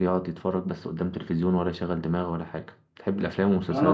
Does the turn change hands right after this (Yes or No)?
Yes